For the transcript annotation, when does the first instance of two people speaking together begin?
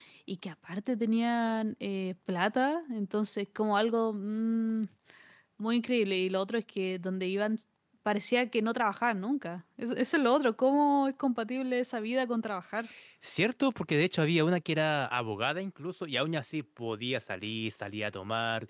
none

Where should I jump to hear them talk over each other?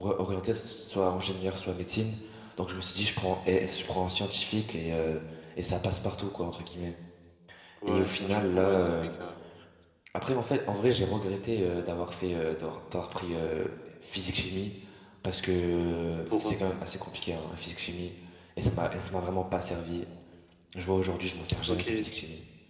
7.9 s

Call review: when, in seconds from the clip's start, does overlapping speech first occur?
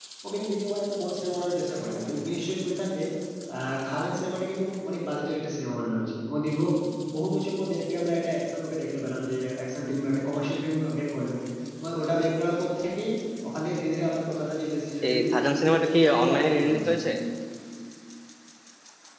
15.0 s

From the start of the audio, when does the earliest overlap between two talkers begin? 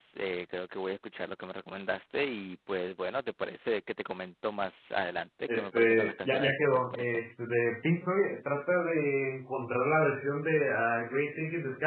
5.5 s

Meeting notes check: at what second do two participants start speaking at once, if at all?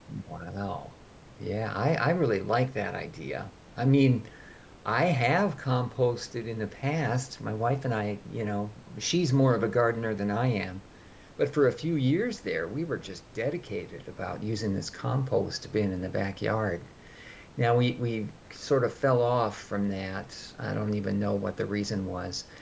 none

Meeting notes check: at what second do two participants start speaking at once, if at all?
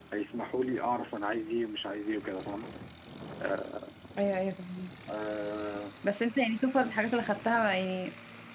none

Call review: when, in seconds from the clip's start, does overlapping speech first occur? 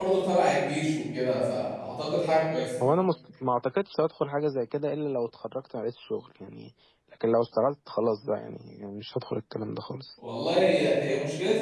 none

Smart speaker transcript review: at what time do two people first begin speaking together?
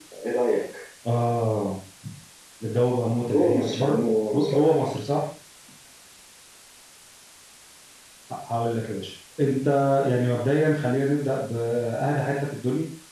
3.3 s

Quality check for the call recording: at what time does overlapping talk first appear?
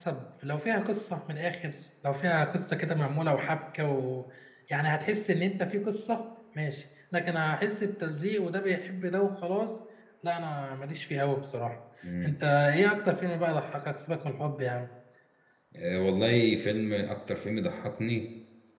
none

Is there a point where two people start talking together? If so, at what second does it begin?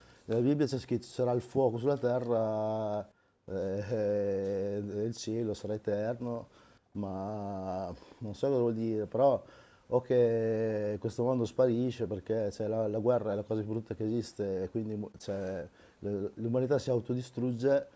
none

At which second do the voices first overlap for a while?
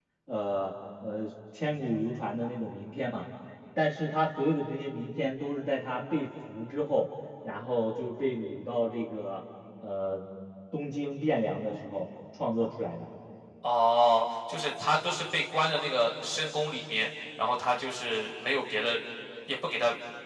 none

